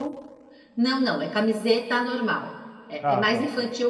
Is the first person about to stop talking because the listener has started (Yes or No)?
No